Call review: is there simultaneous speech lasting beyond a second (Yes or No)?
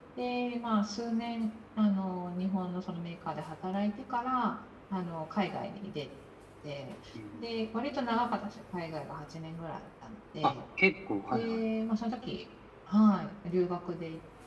No